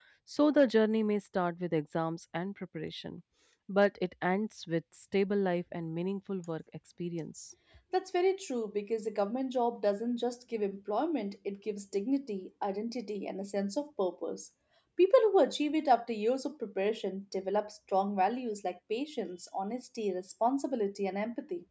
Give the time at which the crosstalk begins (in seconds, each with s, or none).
none